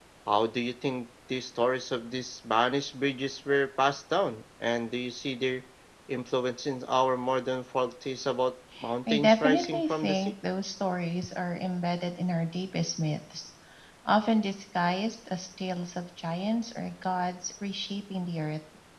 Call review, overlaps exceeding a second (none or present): present